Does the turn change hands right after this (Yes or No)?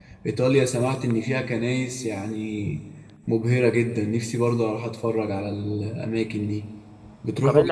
Yes